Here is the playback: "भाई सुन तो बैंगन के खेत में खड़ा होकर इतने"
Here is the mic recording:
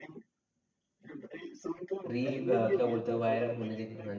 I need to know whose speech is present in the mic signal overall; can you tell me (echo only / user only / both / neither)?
both